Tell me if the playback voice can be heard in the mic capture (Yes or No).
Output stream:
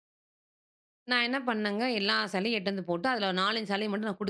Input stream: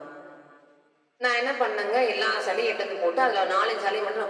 Yes